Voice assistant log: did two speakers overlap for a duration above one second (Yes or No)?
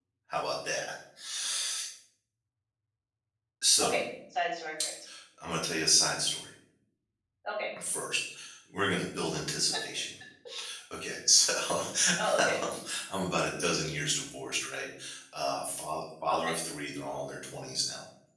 No